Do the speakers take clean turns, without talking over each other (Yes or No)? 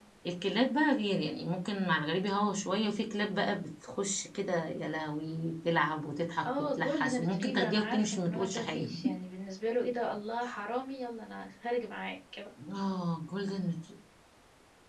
No